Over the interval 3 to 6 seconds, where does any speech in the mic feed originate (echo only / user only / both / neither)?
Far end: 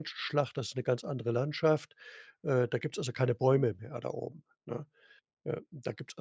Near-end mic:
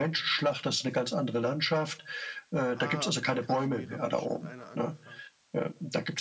both